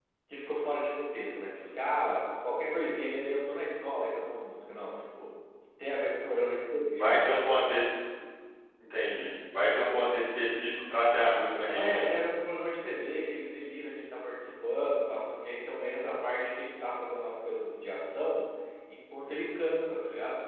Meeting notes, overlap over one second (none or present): none